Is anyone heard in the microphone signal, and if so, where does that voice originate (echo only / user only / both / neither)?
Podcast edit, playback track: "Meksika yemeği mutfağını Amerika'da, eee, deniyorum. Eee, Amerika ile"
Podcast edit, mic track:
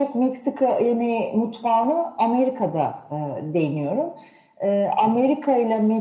echo only